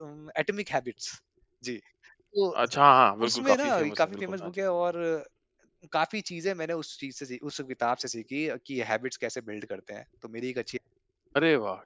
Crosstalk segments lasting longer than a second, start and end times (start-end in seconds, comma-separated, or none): 3.3-4.5